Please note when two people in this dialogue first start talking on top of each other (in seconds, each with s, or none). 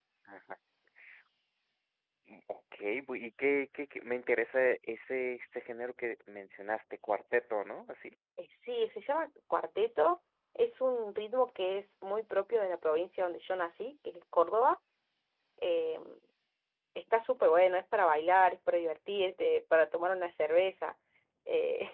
none